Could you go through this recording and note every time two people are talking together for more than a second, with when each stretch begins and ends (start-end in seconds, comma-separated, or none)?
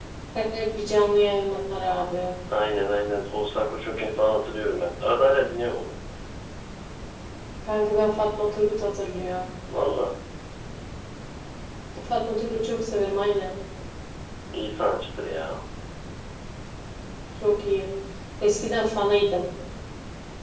none